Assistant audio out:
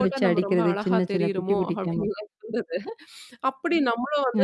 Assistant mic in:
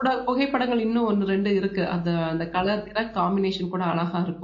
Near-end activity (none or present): present